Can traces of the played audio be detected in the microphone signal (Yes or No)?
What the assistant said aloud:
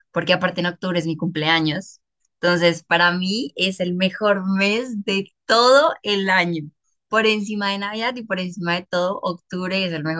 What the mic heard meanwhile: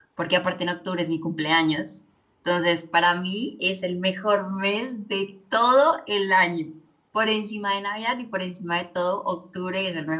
Yes